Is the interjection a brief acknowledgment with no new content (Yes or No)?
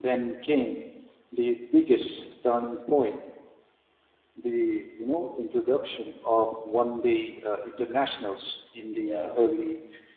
Yes